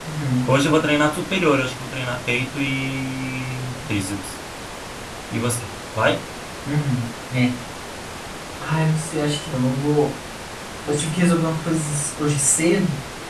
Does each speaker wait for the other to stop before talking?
Yes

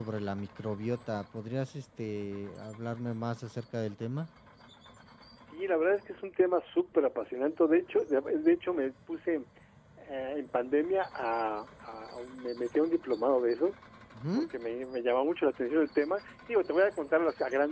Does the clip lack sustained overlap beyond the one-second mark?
Yes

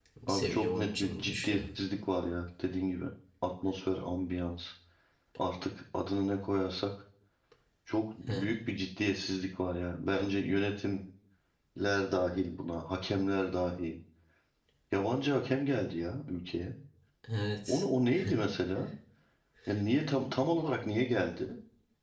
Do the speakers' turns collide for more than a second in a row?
Yes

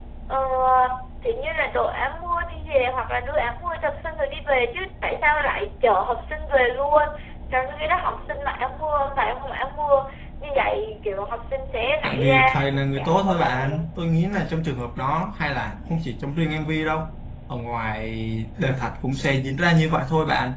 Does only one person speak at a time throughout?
No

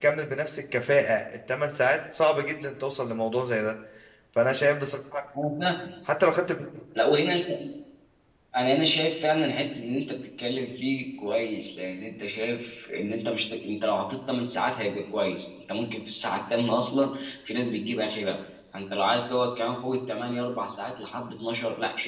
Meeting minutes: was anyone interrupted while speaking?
No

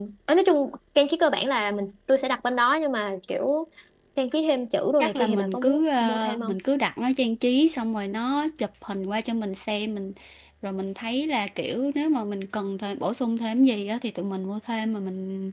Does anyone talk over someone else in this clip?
Yes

